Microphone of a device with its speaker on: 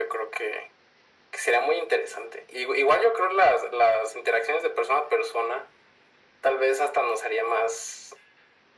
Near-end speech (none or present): none